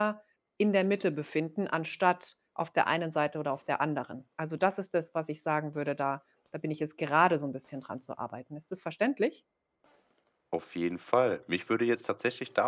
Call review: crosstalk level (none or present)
none